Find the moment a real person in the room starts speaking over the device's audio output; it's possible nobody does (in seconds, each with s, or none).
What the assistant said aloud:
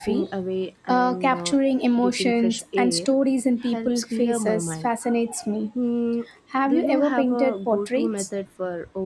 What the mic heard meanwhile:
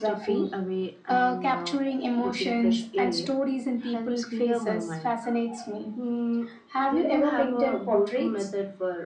none